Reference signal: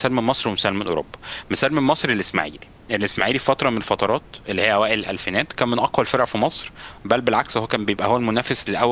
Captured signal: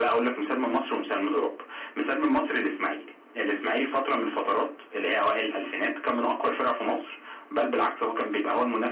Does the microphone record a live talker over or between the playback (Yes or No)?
No